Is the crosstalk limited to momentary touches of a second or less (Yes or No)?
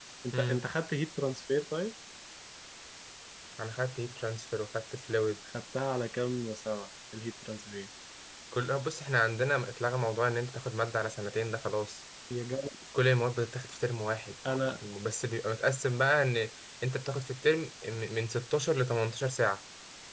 Yes